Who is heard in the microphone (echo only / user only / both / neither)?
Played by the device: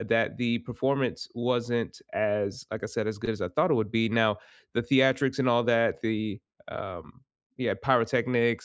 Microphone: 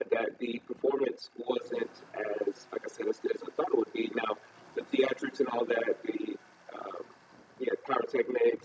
echo only